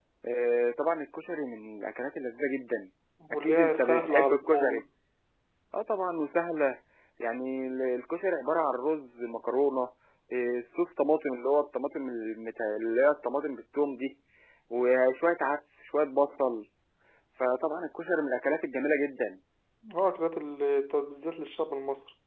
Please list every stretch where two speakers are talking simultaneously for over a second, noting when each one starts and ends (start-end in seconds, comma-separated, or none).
3.3-4.8